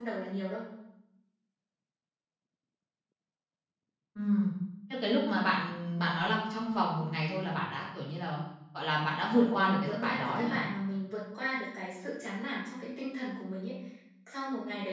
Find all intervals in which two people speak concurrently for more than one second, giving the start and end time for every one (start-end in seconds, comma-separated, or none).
9.3-10.6